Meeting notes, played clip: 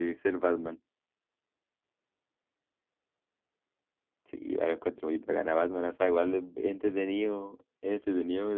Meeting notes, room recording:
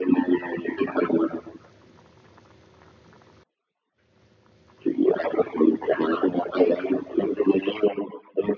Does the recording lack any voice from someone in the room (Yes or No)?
Yes